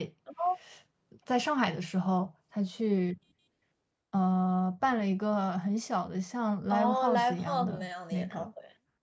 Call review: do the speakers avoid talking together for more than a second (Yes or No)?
No